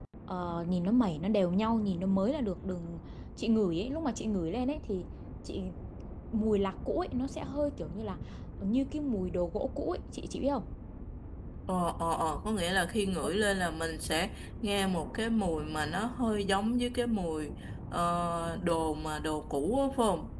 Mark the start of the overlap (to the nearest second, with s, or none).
none